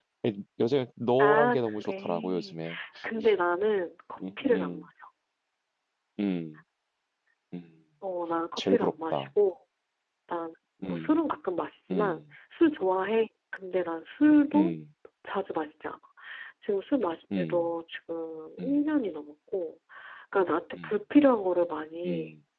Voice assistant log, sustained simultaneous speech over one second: present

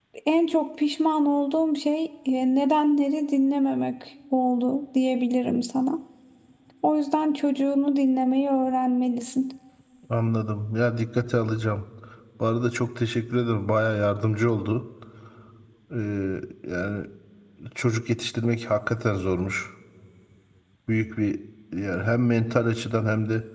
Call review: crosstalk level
none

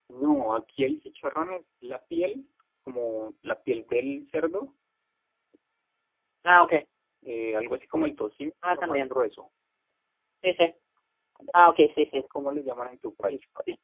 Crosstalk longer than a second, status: none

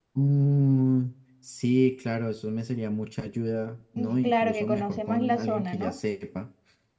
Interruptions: present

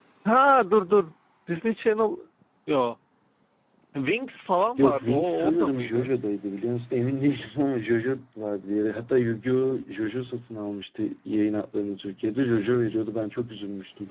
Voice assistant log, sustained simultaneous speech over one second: present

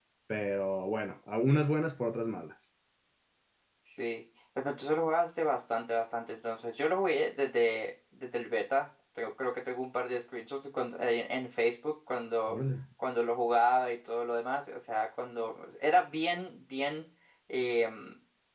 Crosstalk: none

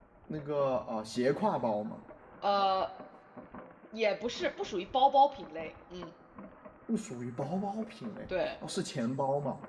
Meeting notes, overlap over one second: none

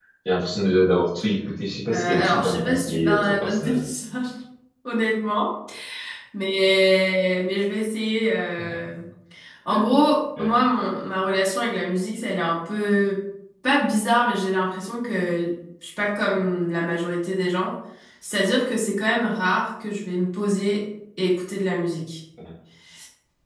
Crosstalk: present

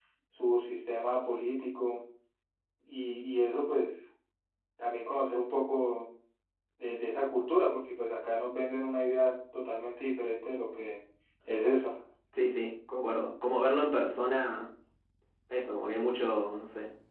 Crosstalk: none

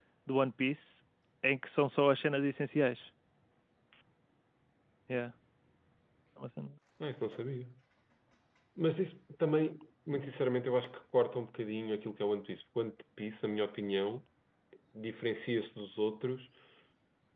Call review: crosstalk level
none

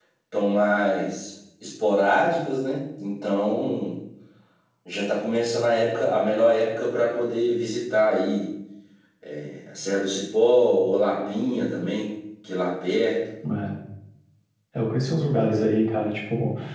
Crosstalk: none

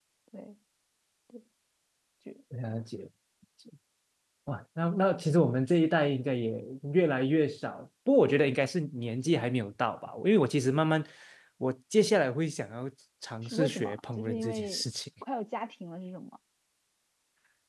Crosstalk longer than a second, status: present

